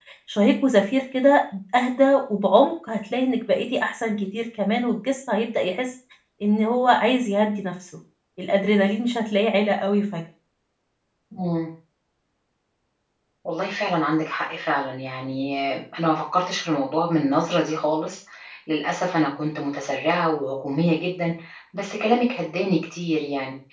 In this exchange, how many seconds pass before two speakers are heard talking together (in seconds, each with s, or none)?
none